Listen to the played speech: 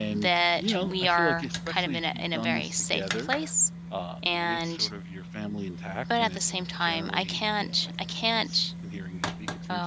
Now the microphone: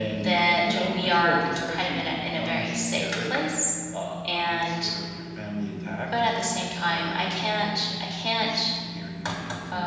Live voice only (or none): none